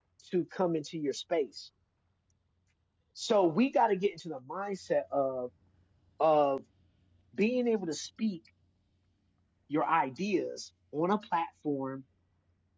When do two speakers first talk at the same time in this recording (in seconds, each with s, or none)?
none